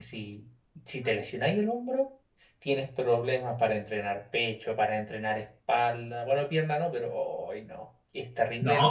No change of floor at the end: No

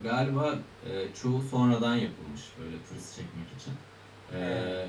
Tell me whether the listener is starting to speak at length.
No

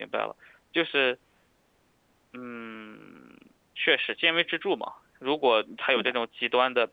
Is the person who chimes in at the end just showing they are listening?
Yes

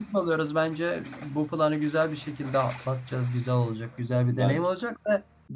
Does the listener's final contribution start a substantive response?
No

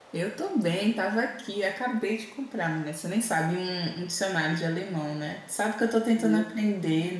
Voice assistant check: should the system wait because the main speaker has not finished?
Yes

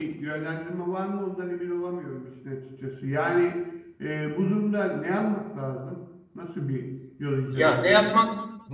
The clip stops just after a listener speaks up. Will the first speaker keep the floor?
No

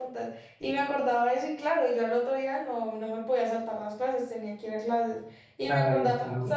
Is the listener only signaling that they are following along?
Yes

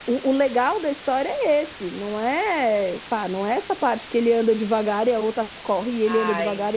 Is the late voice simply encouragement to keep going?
No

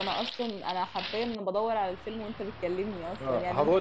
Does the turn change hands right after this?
Yes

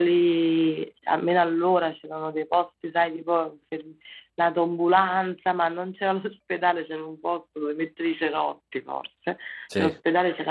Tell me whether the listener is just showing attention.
Yes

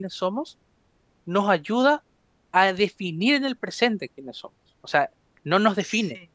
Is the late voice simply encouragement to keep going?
Yes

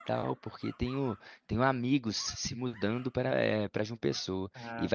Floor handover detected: No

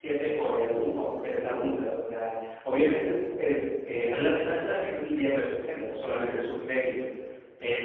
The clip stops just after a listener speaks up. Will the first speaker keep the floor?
Yes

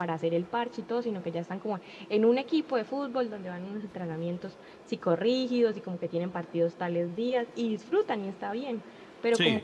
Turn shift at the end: No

